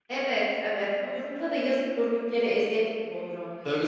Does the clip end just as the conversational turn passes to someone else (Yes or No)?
Yes